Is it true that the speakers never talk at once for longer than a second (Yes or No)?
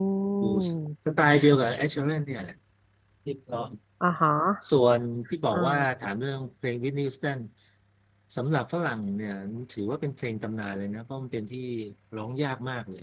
Yes